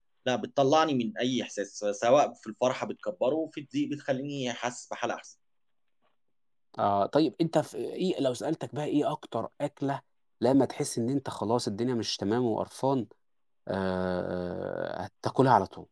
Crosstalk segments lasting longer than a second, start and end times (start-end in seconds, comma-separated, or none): none